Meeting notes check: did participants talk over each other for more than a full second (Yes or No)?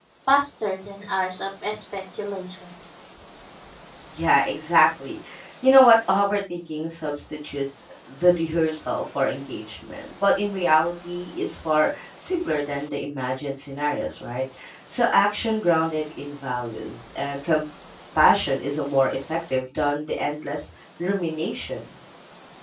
No